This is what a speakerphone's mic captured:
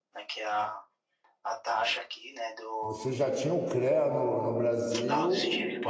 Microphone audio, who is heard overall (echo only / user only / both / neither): both